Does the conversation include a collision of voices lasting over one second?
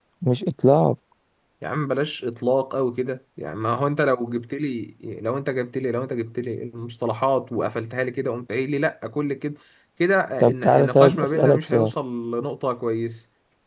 Yes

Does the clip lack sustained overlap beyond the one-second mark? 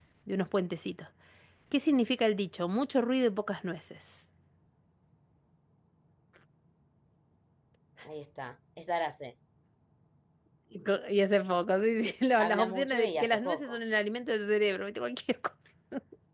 No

